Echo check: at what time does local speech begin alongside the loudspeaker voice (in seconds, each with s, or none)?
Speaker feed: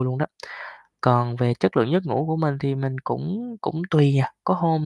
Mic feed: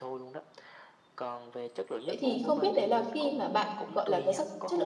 2.0 s